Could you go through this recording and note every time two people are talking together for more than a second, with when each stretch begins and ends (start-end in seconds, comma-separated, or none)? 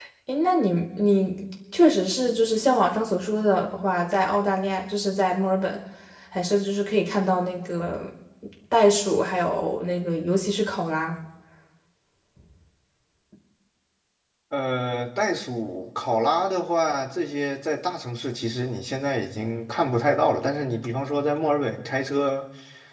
none